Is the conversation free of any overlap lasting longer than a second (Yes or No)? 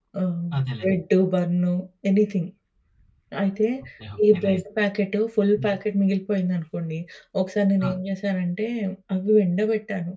Yes